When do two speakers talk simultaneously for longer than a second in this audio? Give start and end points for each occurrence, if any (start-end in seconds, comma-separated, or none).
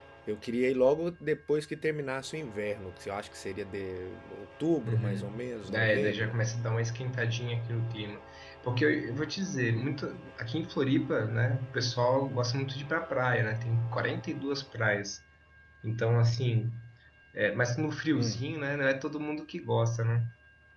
4.8-6.3